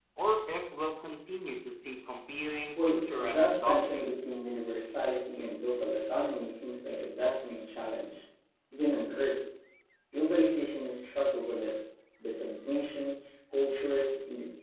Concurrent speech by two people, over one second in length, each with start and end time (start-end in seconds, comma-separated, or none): 2.8-4.1